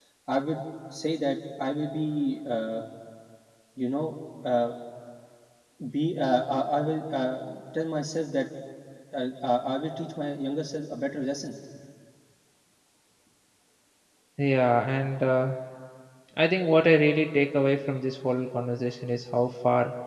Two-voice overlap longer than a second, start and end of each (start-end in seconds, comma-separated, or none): none